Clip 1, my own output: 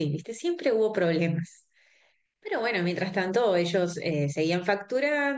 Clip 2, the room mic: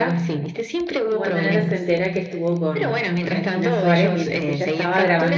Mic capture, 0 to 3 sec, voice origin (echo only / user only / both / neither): both